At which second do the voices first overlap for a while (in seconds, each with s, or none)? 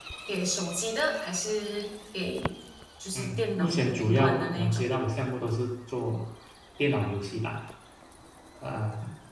3.1 s